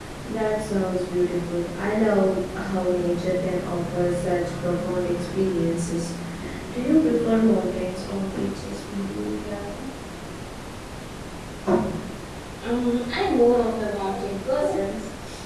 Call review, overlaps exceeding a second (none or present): none